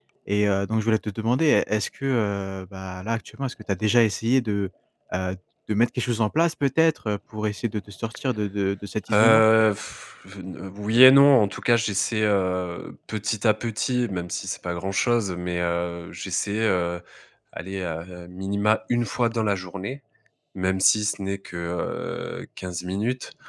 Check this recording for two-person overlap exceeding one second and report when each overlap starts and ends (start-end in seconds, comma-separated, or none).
none